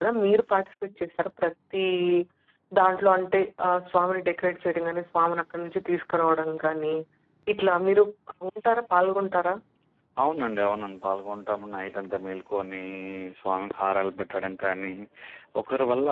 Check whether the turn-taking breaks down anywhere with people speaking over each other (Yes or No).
No